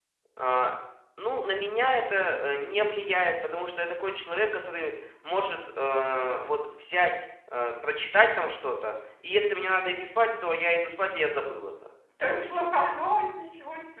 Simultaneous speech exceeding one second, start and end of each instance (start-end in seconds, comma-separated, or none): none